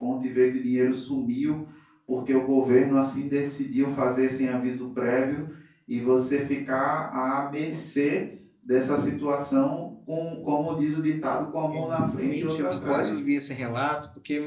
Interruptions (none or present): present